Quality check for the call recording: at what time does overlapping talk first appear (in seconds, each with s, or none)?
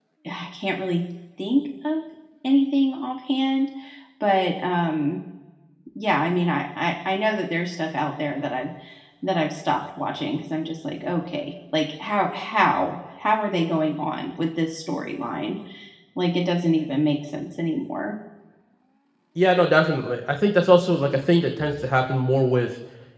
none